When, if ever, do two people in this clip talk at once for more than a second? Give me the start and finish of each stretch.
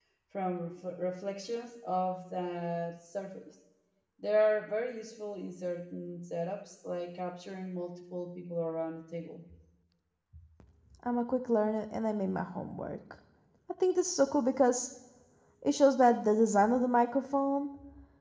none

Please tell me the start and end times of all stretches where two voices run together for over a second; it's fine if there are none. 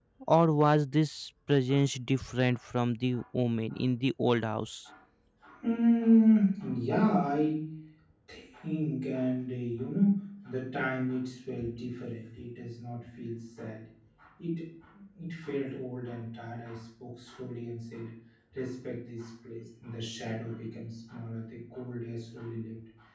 none

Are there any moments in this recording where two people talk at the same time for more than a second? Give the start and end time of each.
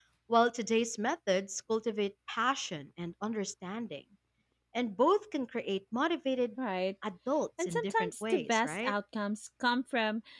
7.6-8.9

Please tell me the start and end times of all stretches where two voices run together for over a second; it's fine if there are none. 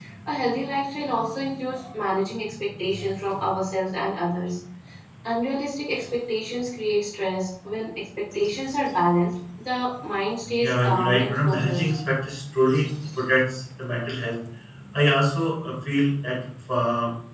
10.6-11.9

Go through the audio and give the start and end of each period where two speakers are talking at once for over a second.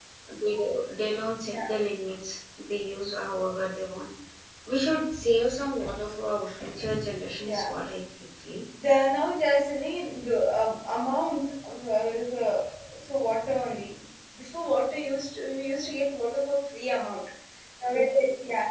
none

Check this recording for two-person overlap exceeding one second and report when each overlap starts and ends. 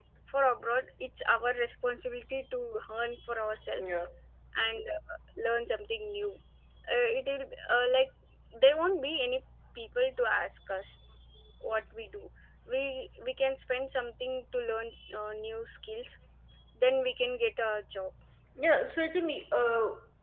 none

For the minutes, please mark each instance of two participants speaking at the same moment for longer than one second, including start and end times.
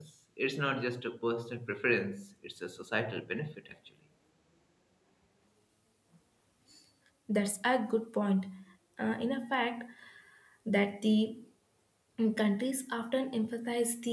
none

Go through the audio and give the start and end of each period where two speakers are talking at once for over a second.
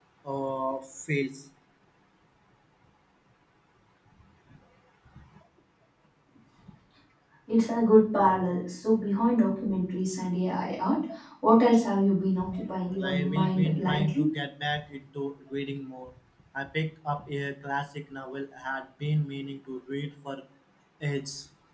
12.9-14.3

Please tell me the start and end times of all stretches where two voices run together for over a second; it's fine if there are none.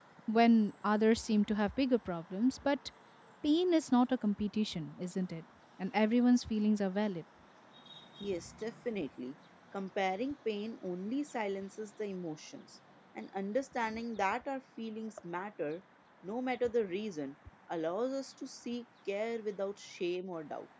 none

